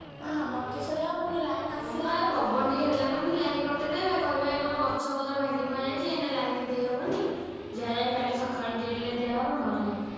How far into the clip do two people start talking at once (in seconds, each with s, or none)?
1.8 s